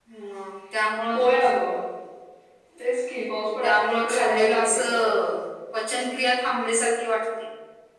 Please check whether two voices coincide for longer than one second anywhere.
Yes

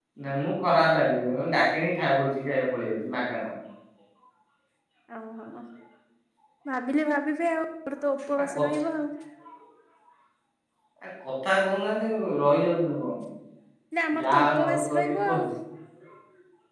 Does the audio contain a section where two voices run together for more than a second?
Yes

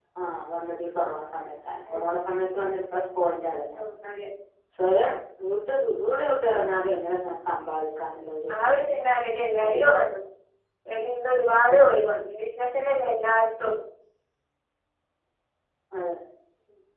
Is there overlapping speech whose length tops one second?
No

